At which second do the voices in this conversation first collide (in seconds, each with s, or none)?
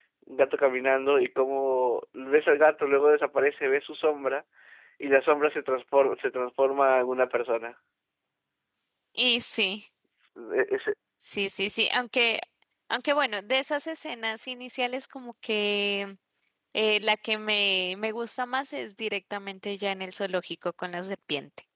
none